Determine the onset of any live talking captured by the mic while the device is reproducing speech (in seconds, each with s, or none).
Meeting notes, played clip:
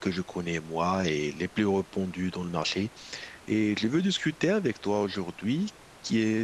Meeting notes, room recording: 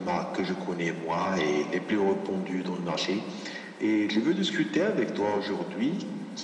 none